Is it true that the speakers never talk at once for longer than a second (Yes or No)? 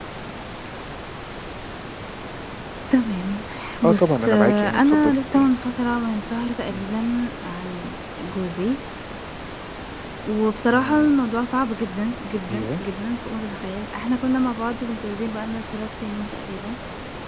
No